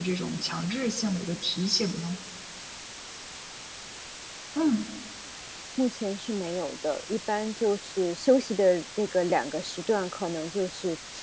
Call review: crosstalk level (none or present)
none